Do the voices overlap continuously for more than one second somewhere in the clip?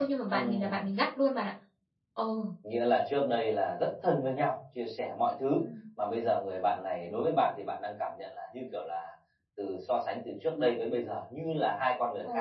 No

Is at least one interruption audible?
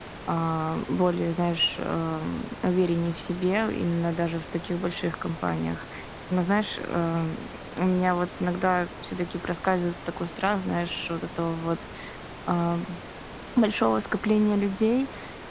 No

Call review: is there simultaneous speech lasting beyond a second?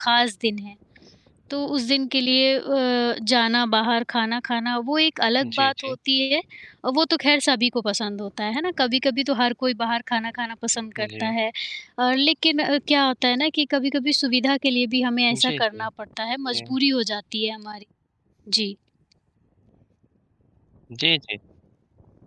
No

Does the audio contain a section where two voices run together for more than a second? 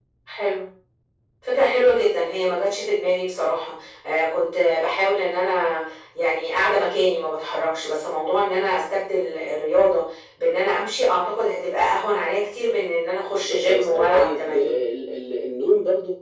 Yes, from 13.3 s

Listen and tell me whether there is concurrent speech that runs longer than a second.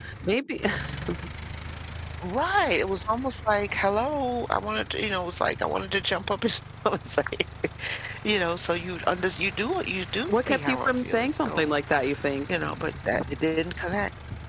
Yes, from 10.3 s

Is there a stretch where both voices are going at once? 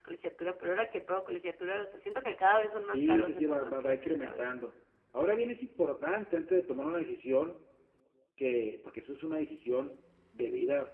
Yes, from 2.9 s

